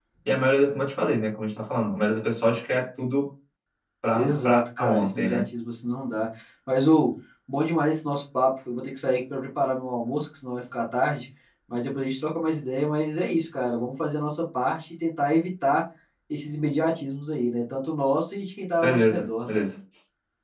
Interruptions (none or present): present